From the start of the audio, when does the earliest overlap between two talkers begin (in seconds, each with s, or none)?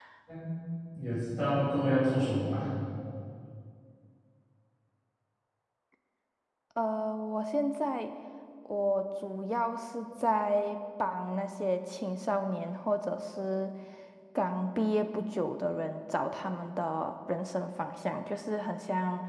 none